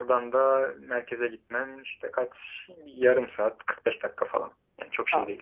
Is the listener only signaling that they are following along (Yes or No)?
No